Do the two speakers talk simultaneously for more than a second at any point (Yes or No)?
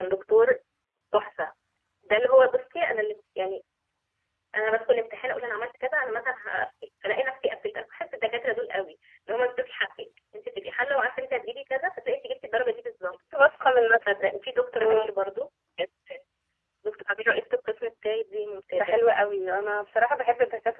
No